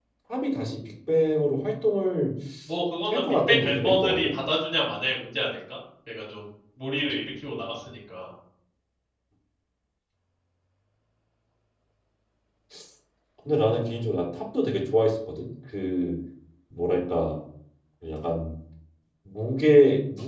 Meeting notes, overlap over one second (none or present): present